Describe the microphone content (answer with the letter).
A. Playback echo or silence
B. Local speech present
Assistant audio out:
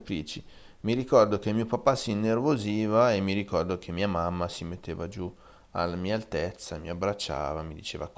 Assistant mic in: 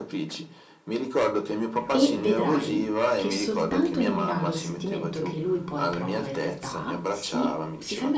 B